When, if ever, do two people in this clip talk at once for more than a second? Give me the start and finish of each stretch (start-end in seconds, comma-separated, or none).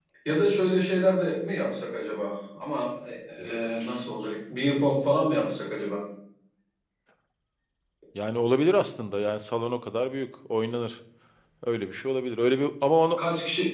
none